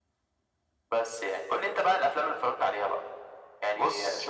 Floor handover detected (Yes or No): No